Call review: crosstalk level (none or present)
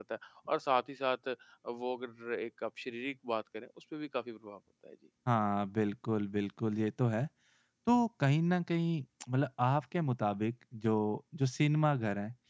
none